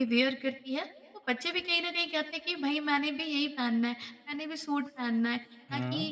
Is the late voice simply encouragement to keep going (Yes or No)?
Yes